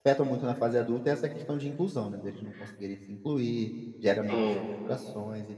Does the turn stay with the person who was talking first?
Yes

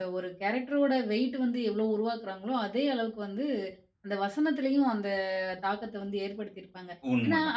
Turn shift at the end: No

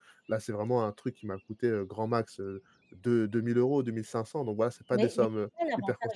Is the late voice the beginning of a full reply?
Yes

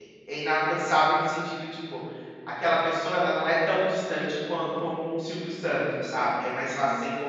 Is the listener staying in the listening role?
No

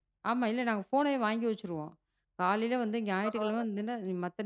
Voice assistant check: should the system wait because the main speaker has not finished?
Yes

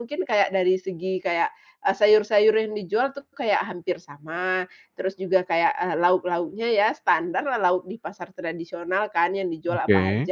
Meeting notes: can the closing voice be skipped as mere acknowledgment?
Yes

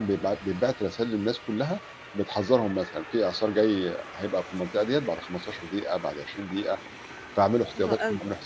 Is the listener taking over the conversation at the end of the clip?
Yes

